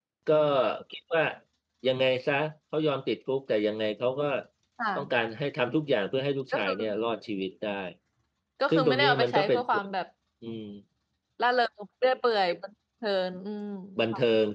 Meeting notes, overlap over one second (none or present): present